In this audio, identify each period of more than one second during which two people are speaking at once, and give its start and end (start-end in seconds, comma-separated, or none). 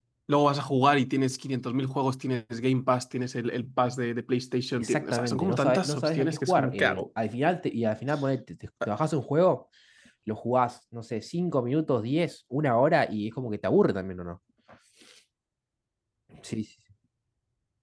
4.8-7.1